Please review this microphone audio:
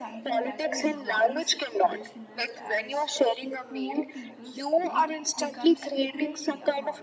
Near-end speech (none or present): present